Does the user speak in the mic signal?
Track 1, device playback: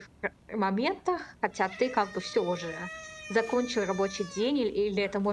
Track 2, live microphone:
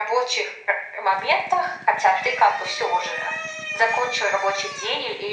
No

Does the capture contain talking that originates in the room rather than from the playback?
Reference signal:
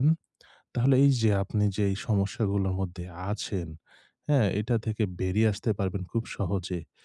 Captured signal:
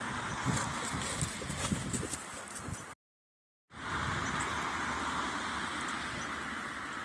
No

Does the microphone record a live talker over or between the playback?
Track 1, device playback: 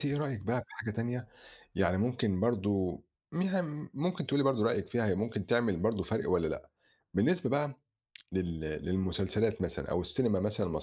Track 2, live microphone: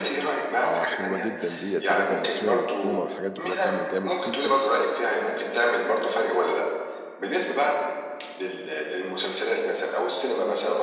Yes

